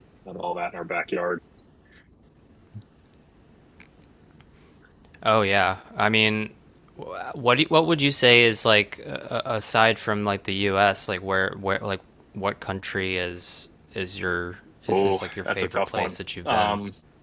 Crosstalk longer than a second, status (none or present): present